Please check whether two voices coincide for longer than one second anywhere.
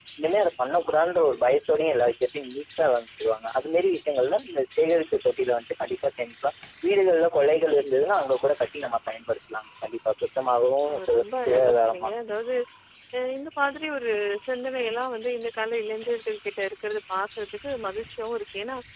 Yes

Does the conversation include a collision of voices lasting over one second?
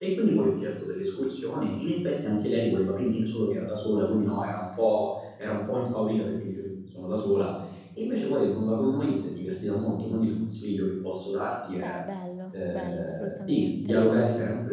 Yes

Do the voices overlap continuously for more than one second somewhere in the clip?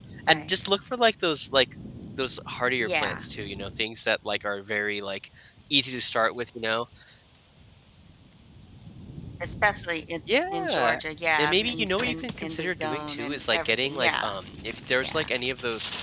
Yes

